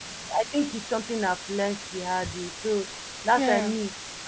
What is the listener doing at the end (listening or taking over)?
listening